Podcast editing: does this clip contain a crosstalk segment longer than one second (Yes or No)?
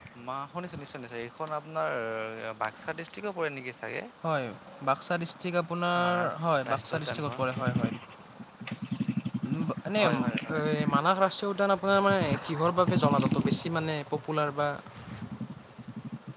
Yes